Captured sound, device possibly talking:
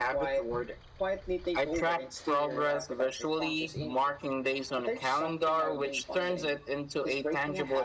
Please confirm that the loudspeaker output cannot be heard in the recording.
No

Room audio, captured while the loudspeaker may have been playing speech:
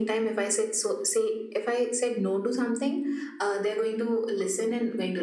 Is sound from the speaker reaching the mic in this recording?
Yes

